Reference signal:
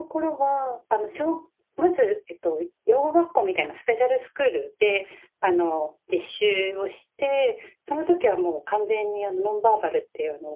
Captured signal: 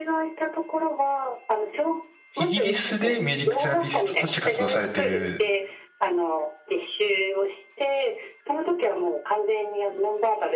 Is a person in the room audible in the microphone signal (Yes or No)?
Yes